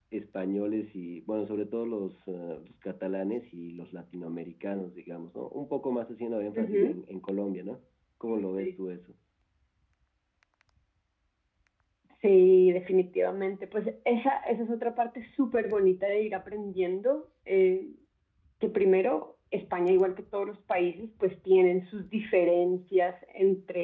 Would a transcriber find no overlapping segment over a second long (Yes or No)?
Yes